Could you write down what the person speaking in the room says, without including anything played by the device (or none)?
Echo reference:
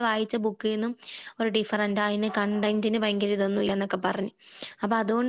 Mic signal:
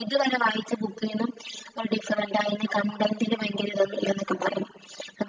none